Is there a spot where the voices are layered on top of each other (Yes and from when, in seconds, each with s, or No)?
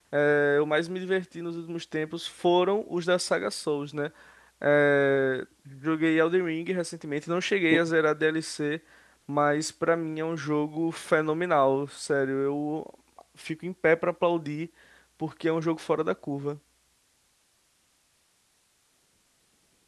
No